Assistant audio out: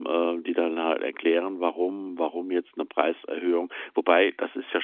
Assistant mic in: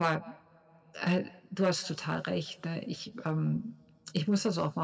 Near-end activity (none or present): present